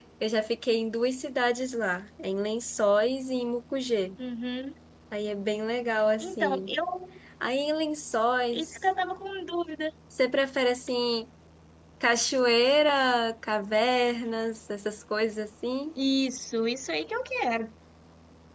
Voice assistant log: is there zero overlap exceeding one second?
Yes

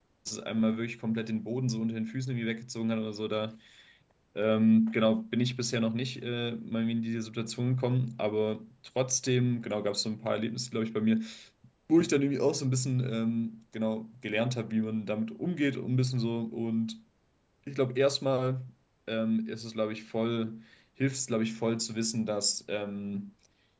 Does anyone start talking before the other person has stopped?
No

